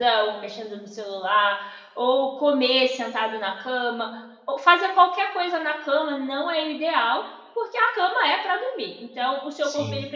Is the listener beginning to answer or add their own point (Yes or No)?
No